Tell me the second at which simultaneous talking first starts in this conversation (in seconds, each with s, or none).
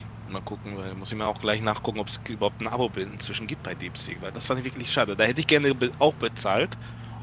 none